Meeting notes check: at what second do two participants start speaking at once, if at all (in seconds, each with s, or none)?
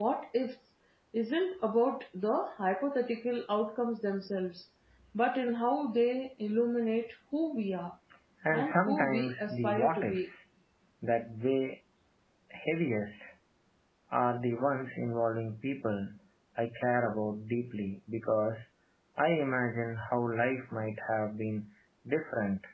8.5 s